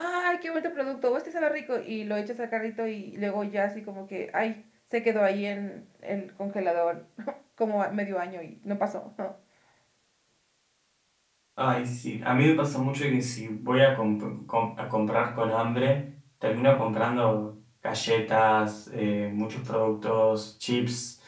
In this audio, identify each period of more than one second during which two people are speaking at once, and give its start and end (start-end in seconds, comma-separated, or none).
none